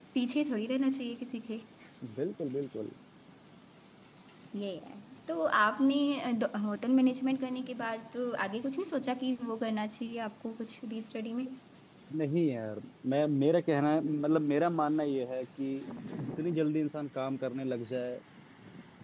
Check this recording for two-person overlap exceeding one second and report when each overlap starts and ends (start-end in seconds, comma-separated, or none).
none